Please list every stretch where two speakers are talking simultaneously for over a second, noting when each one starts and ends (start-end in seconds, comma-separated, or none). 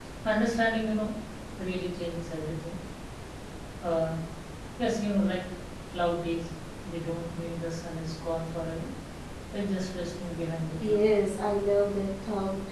none